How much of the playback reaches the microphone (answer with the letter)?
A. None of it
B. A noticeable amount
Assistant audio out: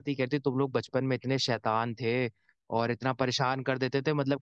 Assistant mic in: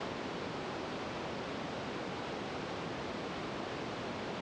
A